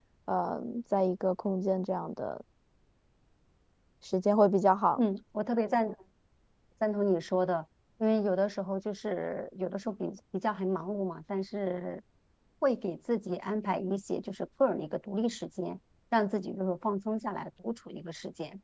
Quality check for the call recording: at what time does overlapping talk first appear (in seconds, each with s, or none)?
none